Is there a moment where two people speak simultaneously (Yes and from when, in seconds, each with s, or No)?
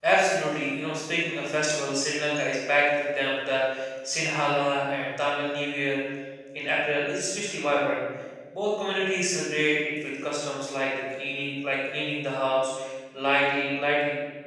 No